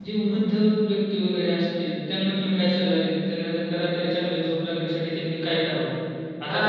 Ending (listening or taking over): taking over